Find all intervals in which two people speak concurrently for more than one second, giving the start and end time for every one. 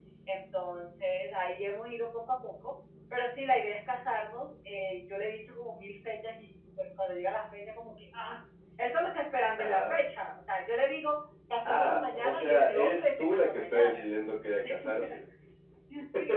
11.7-14.0

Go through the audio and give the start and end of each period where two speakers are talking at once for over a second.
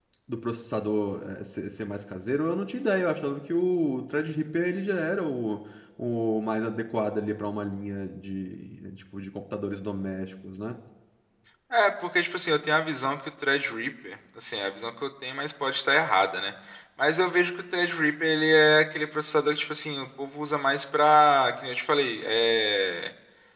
none

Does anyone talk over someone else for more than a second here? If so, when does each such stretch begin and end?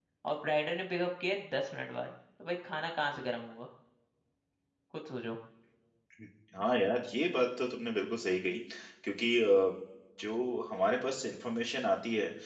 none

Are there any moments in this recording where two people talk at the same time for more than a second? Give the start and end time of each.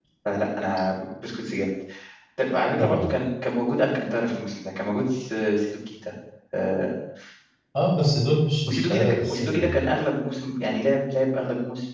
8.7-9.9

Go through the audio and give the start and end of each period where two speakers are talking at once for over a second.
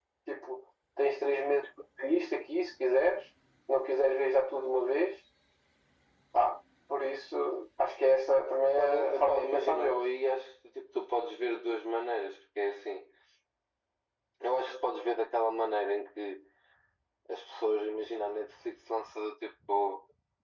8.7-10.1

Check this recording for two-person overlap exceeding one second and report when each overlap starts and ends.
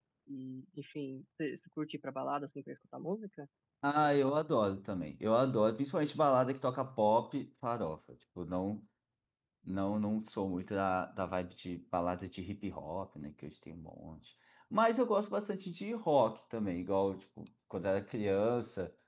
none

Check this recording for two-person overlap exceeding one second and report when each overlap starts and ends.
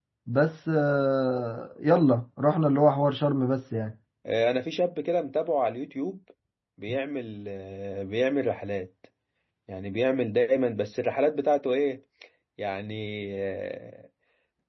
none

